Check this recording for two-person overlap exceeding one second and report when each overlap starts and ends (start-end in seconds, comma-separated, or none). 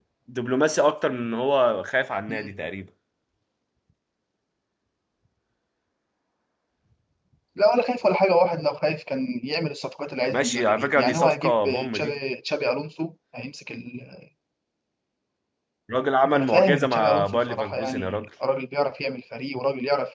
10.3-12.2, 16.2-18.3